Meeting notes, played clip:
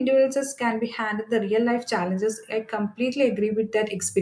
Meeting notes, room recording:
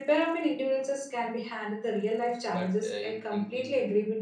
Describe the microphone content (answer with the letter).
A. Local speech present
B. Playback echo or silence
A